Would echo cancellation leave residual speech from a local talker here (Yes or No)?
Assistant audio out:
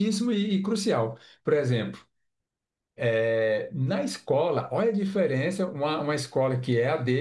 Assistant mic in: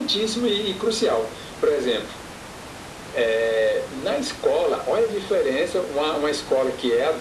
No